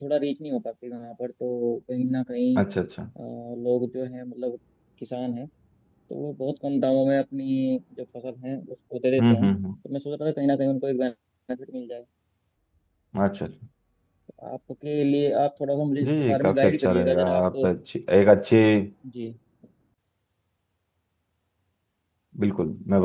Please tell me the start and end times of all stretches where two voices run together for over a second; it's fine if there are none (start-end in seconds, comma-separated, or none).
16.0-17.4